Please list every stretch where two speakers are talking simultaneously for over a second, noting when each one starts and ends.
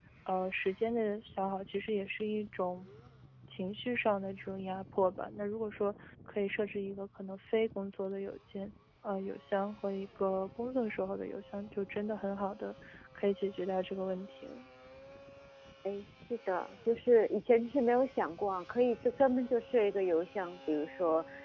none

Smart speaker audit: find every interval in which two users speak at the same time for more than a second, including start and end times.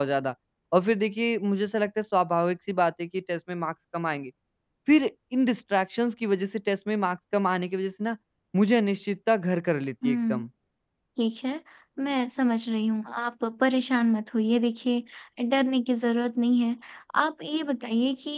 none

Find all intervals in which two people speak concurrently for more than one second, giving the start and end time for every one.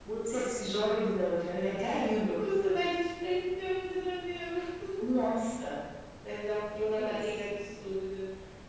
none

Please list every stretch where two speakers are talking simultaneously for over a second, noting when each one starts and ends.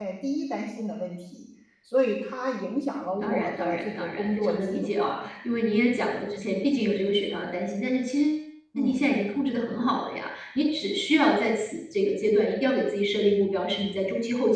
3.2-5.3

